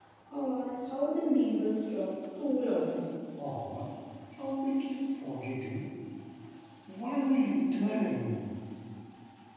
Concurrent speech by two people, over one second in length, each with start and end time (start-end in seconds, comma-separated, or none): none